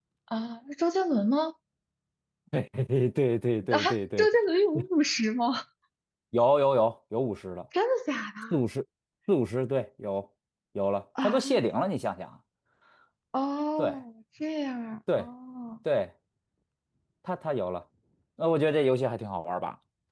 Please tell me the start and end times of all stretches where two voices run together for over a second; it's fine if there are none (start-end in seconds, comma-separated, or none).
none